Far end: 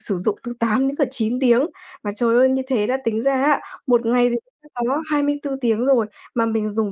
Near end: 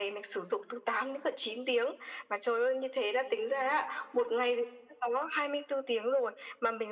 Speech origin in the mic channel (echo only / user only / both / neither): echo only